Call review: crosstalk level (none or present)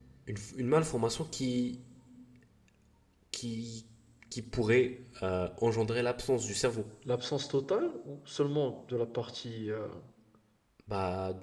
none